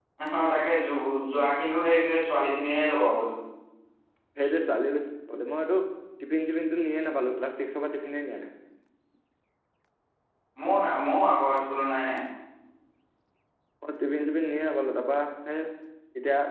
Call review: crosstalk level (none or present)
none